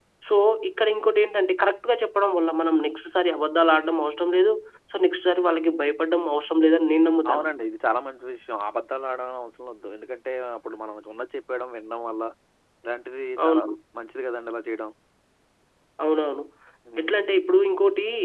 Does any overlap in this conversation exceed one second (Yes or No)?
No